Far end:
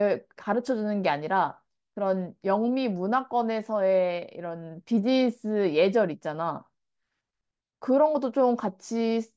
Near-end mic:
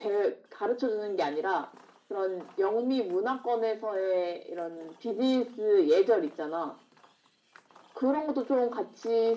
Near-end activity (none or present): none